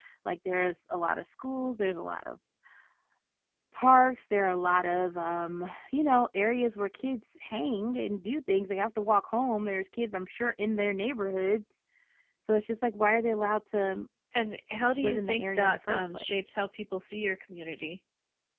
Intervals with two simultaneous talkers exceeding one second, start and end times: 15.0-16.3

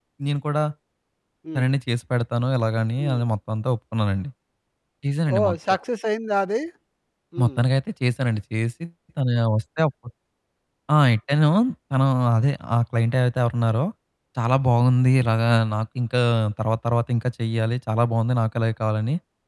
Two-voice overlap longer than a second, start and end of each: none

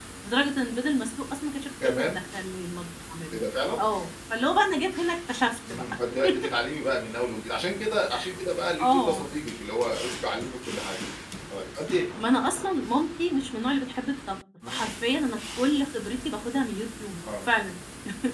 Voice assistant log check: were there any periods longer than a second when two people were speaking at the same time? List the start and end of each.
none

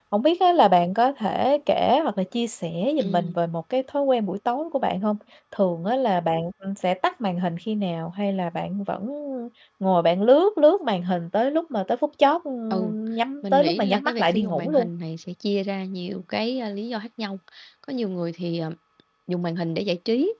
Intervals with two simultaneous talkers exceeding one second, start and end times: 13.4-14.9

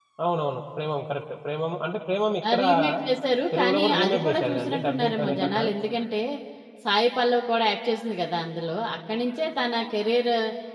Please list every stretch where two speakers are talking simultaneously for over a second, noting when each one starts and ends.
3.5-5.6

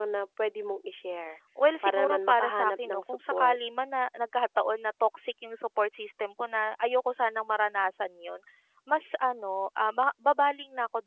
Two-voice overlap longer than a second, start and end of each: 1.8-3.6

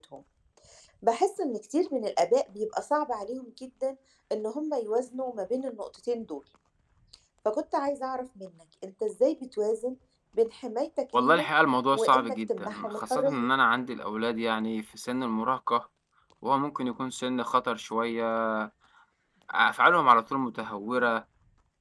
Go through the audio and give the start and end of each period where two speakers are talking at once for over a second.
11.9-13.5

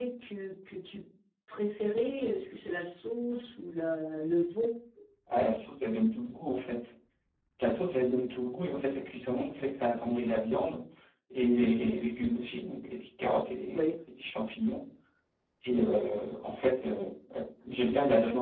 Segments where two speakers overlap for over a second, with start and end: none

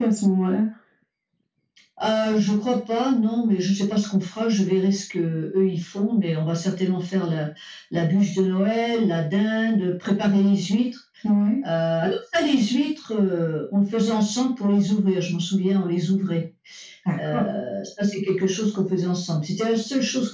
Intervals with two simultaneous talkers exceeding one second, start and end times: none

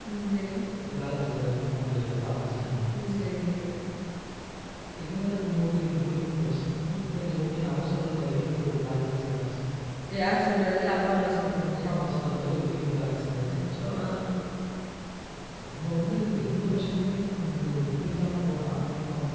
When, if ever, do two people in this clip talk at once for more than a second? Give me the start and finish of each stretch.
none

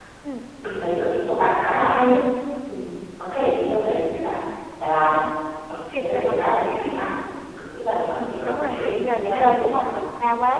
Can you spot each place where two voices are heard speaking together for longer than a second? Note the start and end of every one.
8.2-9.9

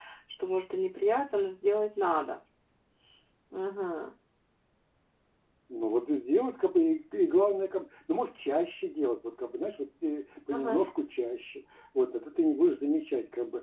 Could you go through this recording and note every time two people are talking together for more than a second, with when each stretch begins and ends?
none

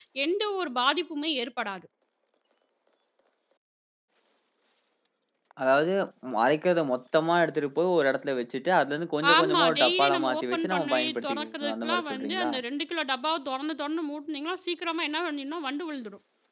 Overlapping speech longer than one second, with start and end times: 9.3-12.5

